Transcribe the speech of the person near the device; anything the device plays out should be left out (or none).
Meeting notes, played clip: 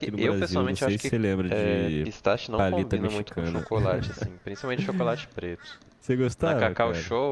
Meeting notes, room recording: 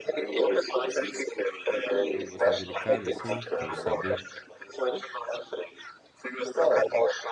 É um gosto mais delicado, assim, pelo sabor.